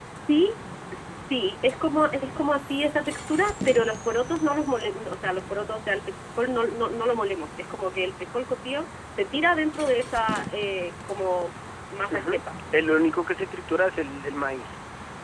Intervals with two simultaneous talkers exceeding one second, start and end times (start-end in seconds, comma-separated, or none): none